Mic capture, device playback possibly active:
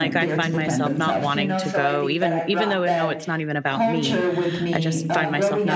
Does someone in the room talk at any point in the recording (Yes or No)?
Yes